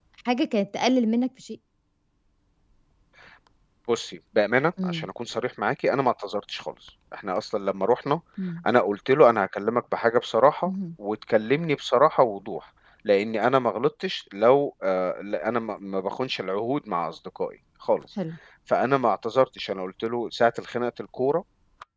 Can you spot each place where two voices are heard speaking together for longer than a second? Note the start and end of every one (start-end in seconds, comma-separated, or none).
none